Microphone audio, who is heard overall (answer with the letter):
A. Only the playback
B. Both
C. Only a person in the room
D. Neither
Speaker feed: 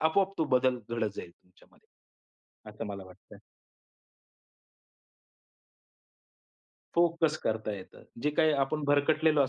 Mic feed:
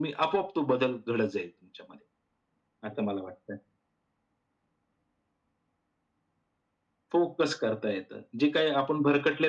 A